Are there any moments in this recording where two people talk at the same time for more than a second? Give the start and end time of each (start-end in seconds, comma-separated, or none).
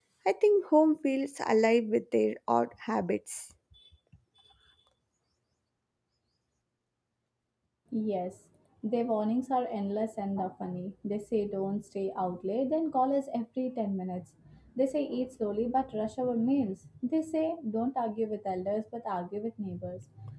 none